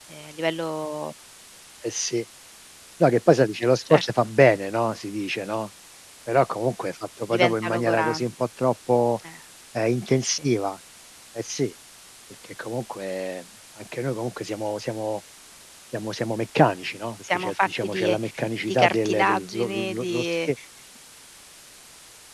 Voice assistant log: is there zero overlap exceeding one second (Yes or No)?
No